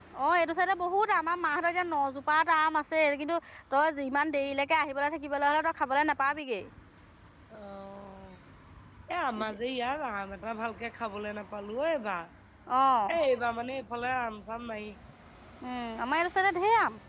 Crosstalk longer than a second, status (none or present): none